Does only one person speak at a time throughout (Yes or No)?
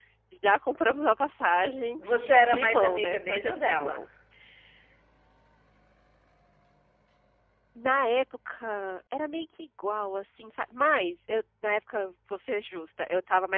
No